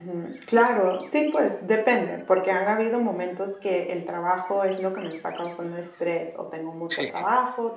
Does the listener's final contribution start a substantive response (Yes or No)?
No